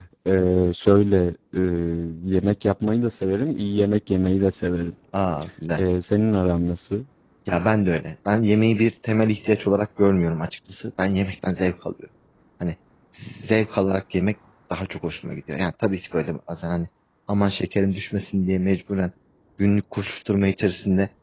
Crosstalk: none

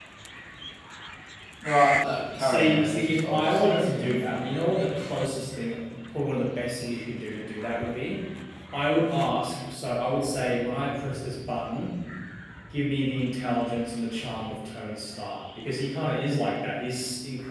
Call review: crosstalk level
present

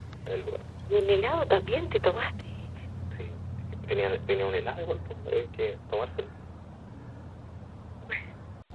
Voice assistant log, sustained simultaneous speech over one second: none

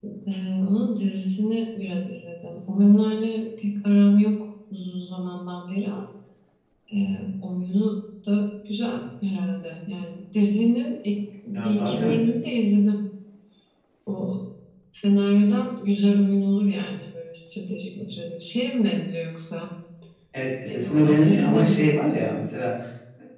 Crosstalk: present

